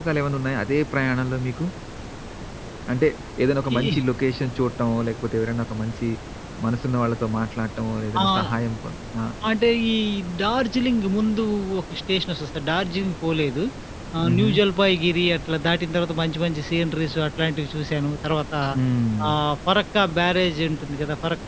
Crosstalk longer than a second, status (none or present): none